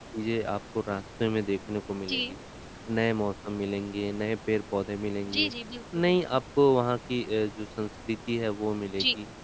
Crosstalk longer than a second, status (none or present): none